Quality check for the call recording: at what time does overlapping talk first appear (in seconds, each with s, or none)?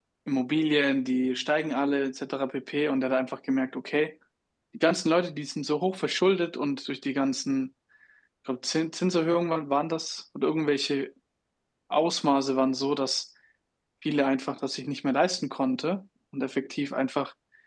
none